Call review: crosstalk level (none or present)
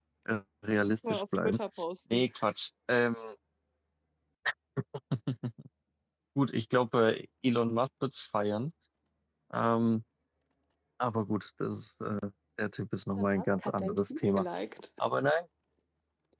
present